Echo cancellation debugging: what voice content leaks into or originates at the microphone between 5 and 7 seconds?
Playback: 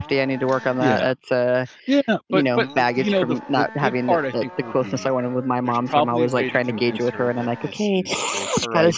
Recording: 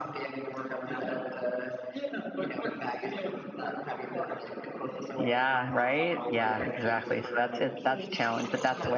both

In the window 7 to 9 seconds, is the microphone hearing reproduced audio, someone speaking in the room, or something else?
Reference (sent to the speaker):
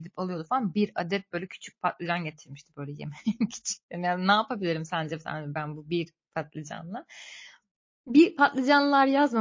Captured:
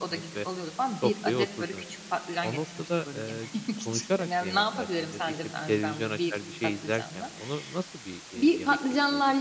both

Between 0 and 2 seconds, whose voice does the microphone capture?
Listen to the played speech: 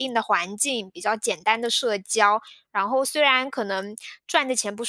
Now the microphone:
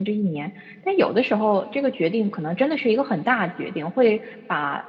user only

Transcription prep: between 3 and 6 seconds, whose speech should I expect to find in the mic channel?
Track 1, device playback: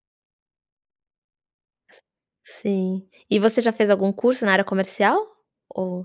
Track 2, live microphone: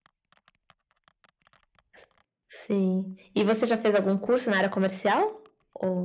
echo only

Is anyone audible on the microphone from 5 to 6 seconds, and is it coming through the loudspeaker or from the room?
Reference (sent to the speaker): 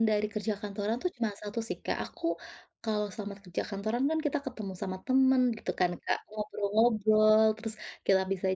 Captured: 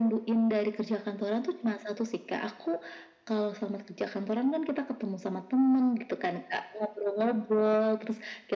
echo only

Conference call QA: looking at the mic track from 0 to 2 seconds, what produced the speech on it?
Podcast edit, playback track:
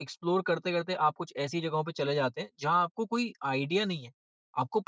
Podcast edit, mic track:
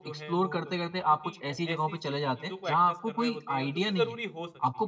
both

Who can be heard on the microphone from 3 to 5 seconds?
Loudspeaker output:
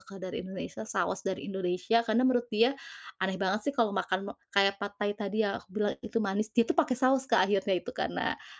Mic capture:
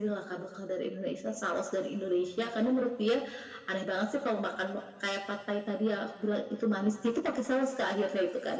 echo only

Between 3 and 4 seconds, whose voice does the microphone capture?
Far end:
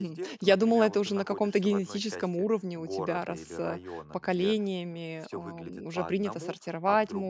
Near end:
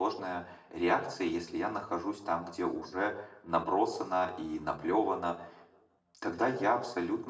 user only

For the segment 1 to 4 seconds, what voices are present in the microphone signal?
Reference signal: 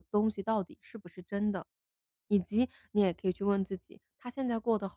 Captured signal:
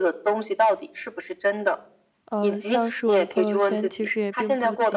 both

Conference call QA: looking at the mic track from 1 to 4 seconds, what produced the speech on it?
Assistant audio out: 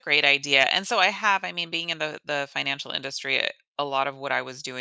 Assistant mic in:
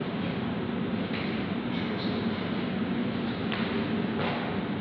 neither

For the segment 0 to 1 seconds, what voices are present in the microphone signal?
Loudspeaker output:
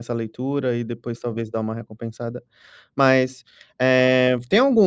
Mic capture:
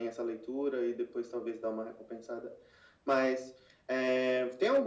echo only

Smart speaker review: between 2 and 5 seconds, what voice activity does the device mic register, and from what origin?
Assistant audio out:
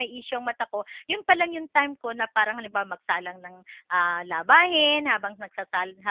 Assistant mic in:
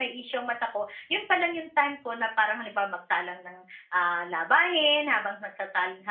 echo only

